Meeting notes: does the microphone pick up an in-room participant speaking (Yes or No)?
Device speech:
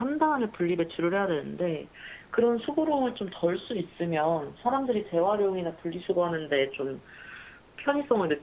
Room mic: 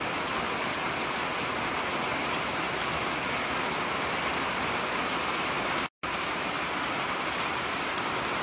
No